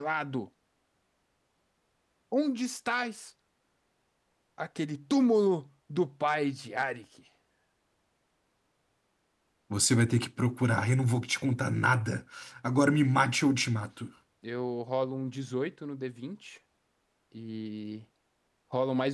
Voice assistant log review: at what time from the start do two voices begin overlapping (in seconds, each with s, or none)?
none